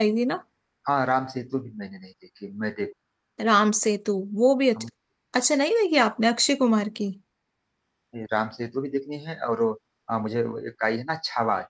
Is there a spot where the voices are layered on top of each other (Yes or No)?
No